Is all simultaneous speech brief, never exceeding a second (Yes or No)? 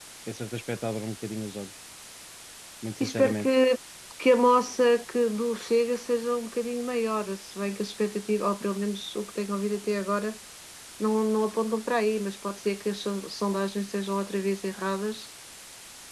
Yes